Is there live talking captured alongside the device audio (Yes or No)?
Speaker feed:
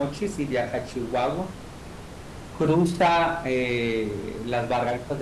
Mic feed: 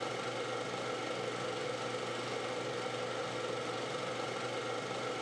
No